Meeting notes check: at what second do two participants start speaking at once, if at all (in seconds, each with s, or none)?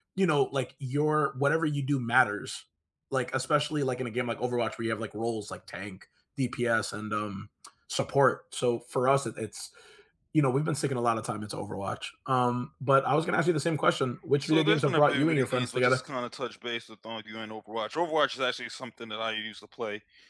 14.4 s